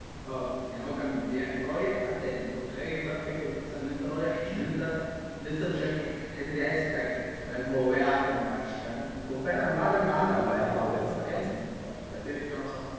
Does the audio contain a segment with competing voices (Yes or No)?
Yes